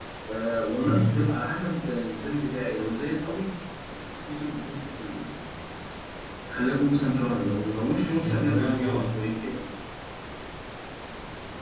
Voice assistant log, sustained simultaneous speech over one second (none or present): present